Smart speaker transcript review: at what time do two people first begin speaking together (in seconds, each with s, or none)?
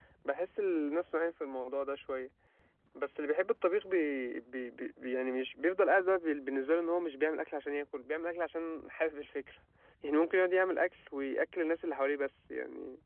none